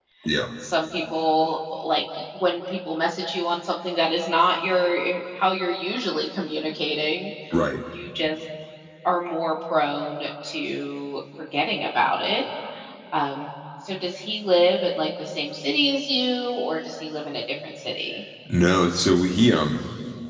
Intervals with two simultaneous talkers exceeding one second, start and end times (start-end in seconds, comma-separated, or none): none